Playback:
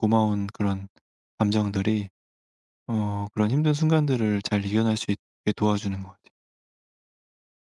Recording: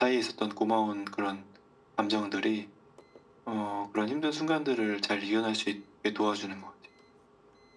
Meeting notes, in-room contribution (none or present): none